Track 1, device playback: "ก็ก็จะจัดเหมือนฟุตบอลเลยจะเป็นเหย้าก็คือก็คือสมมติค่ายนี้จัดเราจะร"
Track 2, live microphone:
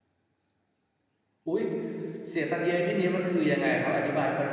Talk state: user only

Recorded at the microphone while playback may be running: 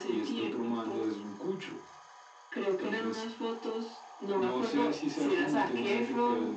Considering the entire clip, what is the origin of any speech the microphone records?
echo only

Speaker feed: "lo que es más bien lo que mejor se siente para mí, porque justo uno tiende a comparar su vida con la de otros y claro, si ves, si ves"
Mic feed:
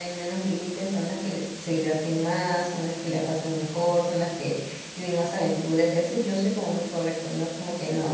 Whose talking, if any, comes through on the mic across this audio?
user only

